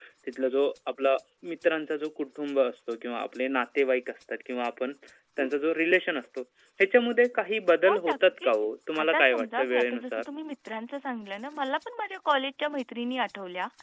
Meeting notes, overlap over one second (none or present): present